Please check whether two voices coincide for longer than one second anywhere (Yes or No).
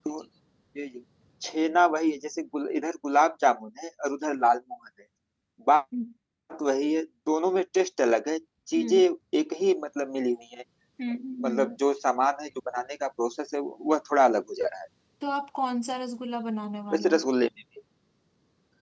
No